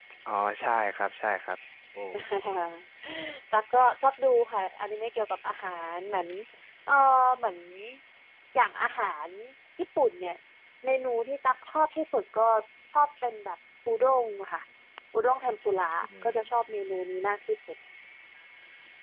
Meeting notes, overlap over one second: none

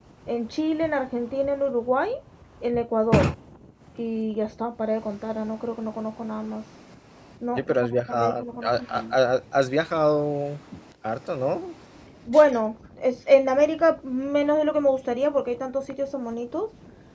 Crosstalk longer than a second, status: present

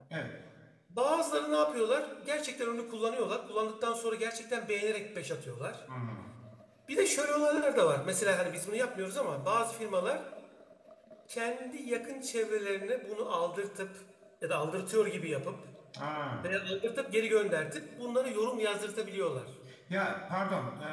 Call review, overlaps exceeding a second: none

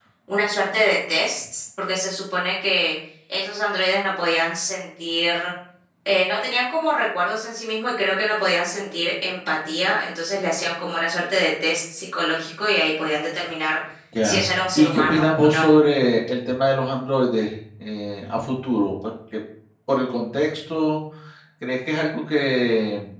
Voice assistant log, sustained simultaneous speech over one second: present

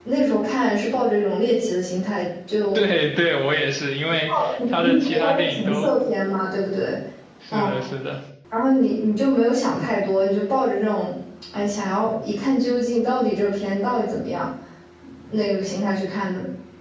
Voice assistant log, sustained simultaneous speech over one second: present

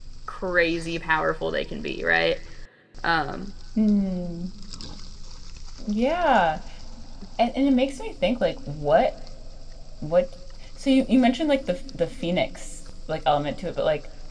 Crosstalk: none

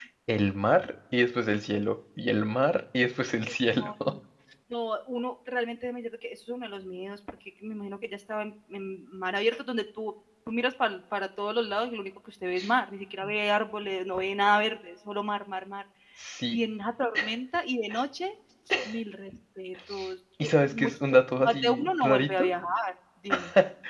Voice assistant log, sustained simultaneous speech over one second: present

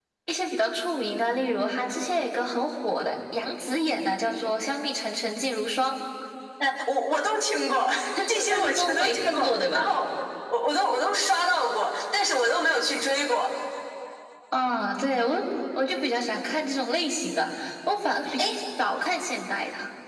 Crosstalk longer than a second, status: present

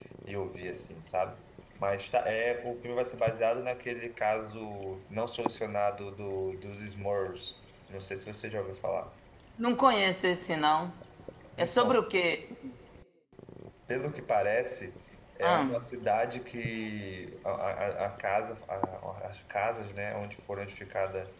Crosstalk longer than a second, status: none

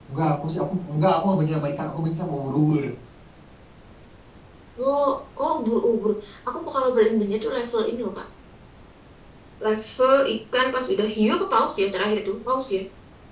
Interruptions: none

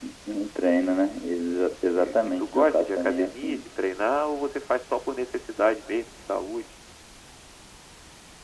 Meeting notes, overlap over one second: present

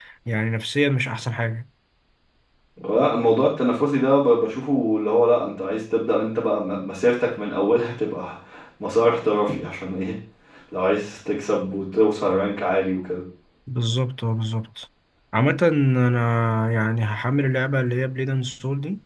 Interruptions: none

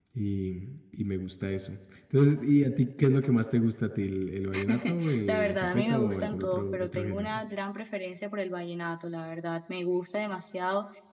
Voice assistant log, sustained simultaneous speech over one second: present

